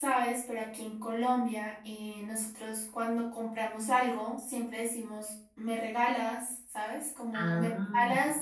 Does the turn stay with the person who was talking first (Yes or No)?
Yes